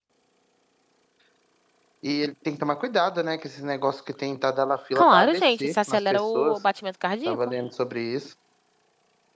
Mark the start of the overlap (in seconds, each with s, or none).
5.0 s